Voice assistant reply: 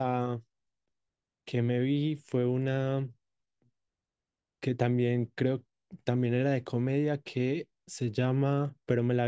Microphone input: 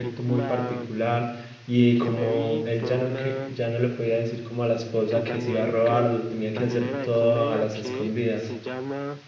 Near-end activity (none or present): present